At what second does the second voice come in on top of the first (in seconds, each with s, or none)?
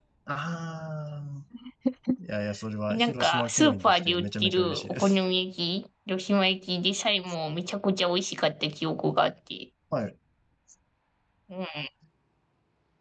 2.9 s